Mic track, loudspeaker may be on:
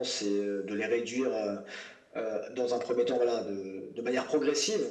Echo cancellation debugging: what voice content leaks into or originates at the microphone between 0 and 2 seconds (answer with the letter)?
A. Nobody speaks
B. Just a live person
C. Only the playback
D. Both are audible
C